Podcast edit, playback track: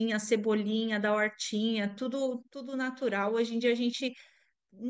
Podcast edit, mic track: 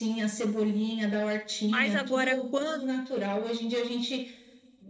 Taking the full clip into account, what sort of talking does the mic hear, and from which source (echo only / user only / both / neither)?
both